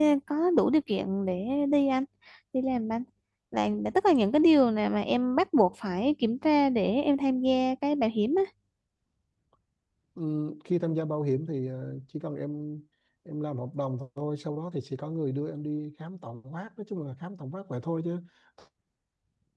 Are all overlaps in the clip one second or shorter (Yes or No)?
Yes